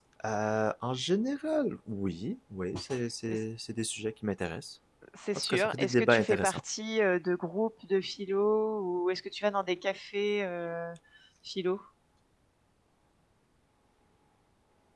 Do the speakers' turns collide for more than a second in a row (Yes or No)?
Yes